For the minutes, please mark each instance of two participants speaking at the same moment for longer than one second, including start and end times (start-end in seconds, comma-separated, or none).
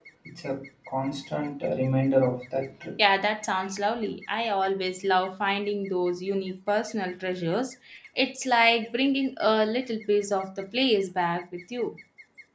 none